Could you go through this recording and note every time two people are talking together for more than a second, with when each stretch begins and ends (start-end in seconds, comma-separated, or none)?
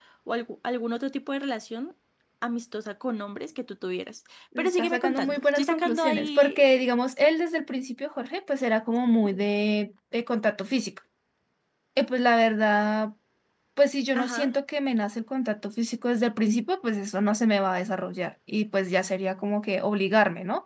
4.6-6.6